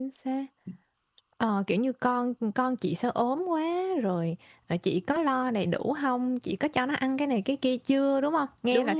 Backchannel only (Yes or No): No